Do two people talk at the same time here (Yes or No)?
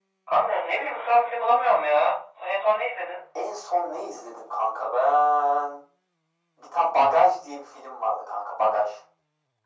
No